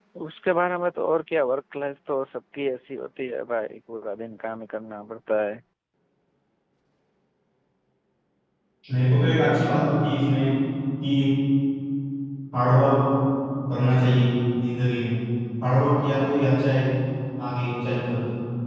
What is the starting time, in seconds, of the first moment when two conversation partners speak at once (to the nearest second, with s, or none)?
none